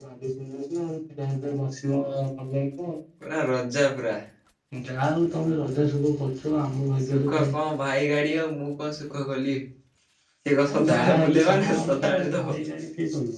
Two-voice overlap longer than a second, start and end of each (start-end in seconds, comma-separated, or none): 10.7-12.4